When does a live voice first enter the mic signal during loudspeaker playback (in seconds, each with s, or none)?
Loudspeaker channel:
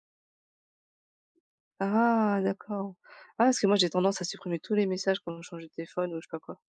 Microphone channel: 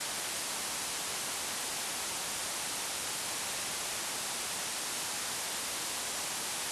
none